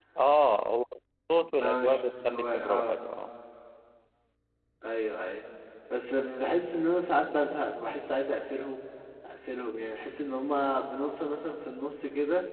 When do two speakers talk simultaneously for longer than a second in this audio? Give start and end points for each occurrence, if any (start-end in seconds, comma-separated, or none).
1.6-3.0